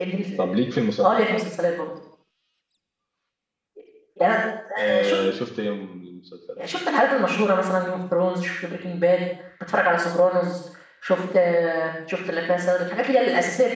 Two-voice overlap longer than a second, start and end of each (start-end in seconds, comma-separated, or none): none